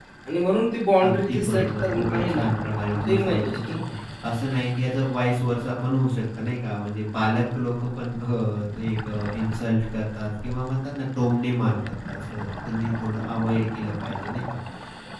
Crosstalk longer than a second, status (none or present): present